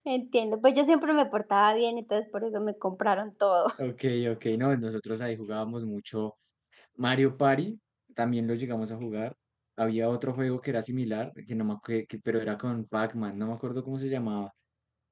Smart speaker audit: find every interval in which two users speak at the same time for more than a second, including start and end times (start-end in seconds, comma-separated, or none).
none